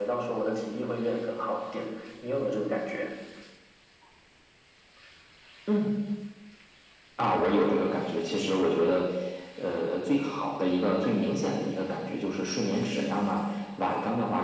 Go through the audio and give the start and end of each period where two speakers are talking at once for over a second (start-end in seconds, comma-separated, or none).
none